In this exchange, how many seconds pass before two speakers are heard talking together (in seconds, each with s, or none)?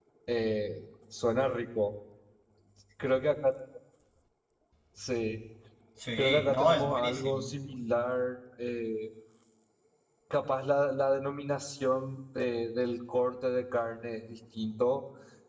6.2 s